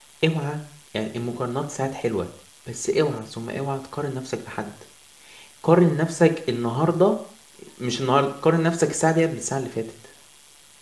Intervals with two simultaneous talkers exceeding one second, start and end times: none

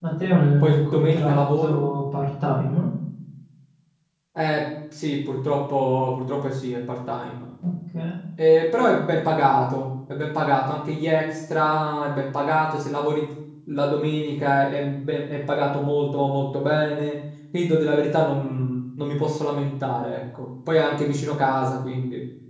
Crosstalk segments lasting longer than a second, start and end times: 0.6-1.8

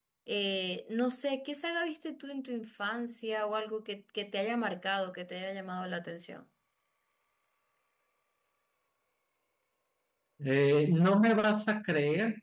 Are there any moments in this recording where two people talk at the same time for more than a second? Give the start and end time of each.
none

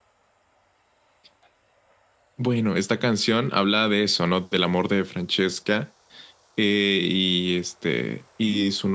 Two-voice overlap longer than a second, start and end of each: none

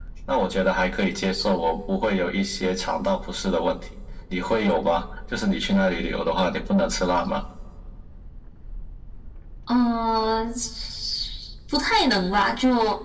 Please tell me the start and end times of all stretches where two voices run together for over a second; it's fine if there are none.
none

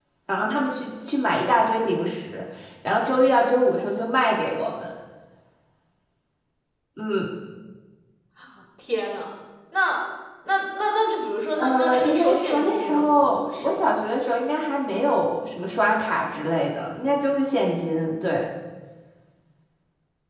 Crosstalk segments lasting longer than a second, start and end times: 11.5-13.9

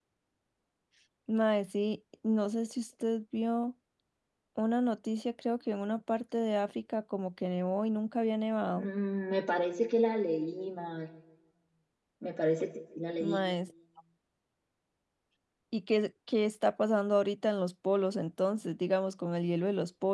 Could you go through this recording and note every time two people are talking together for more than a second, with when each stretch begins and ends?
none

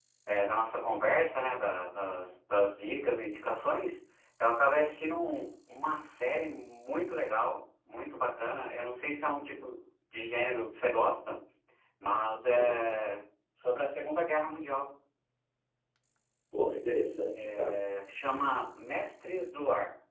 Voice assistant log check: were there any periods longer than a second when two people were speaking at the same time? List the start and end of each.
none

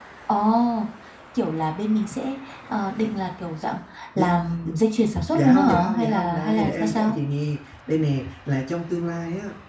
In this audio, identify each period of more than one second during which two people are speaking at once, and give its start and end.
5.3-7.2

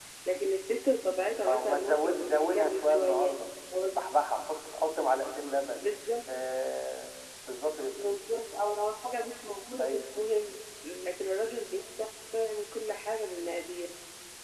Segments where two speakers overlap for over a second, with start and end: 1.4-3.3

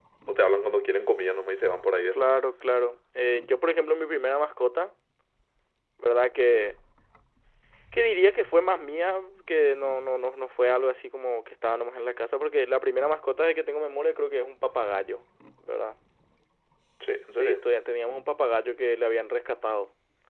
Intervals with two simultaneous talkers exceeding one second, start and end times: none

